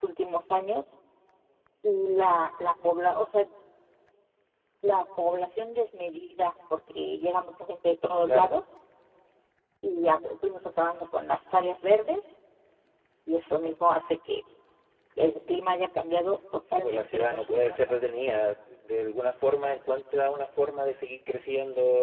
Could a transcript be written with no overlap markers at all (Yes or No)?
No